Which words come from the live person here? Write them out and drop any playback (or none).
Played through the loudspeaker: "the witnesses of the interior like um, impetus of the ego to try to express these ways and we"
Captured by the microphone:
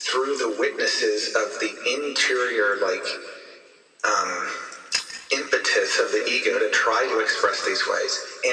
none